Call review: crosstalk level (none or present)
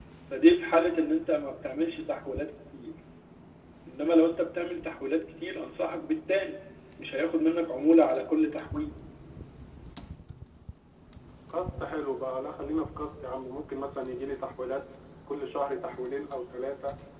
none